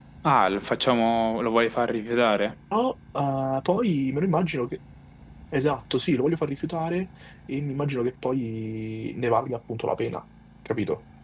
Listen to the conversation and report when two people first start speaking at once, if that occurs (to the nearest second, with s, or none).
none